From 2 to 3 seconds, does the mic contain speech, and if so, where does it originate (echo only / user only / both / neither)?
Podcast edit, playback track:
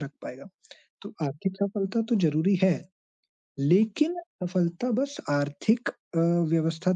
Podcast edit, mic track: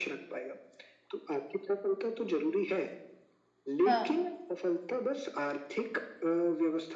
echo only